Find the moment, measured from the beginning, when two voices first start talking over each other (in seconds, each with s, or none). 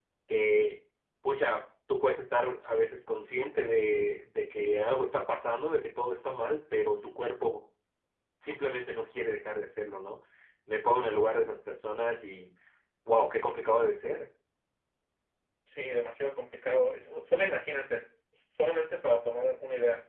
none